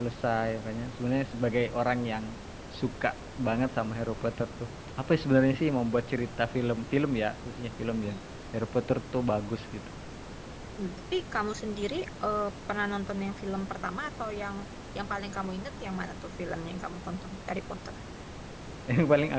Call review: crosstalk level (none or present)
none